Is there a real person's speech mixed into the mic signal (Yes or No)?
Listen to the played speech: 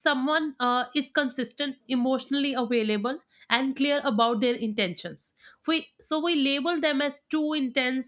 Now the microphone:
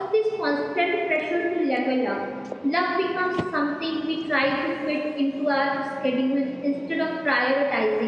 Yes